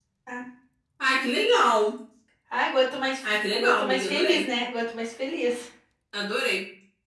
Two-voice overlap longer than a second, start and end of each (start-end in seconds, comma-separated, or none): 3.2-4.5